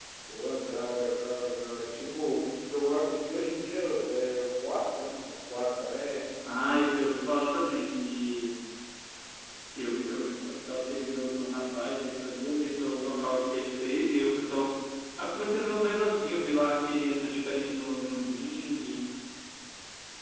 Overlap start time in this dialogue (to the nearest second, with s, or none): none